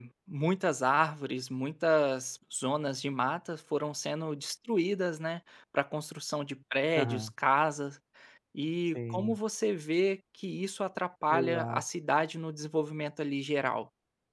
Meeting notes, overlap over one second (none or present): none